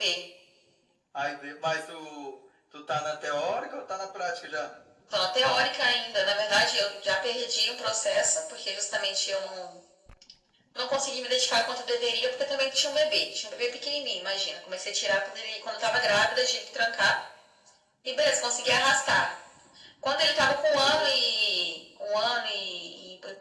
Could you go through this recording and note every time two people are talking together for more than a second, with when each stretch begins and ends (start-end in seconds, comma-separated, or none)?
none